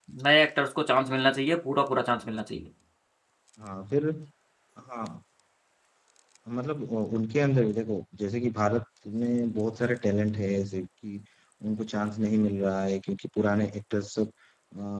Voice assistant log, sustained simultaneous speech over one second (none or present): none